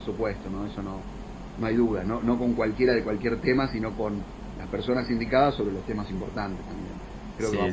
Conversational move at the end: taking over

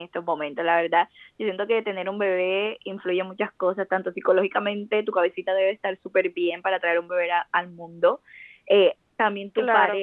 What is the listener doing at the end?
listening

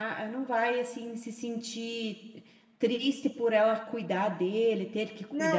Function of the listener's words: taking over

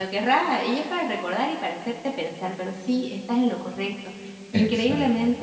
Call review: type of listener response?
listening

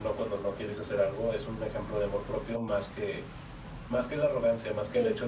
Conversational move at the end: listening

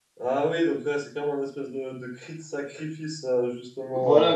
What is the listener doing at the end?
taking over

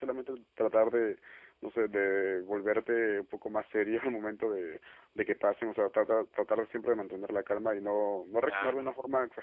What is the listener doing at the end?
listening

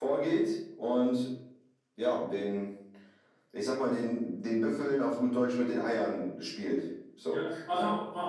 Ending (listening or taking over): taking over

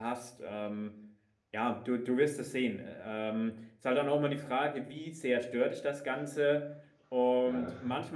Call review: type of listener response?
listening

